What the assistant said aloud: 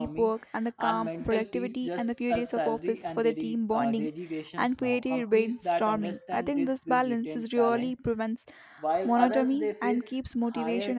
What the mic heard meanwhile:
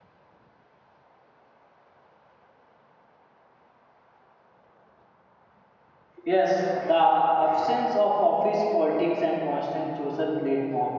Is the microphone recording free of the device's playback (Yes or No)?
Yes